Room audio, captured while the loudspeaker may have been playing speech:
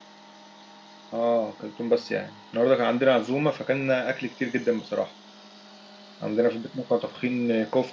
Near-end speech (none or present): present